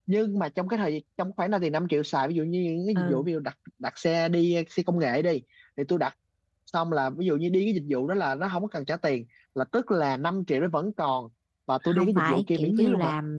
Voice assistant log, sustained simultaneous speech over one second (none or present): present